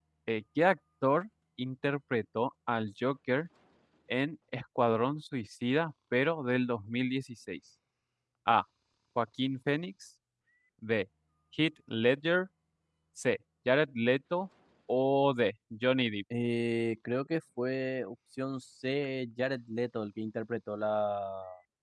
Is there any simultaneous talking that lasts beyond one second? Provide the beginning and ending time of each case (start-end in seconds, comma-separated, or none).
none